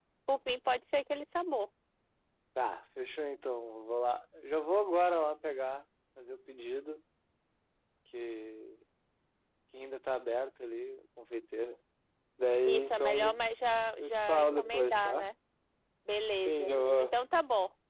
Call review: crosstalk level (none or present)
present